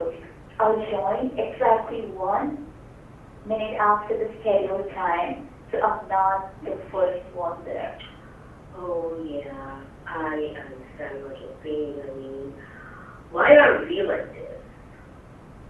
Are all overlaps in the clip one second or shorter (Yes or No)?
Yes